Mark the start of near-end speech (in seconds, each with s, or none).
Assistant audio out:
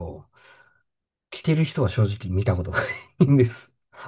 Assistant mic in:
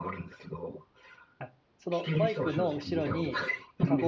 1.4 s